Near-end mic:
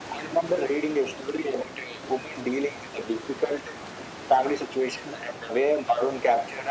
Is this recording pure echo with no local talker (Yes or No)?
Yes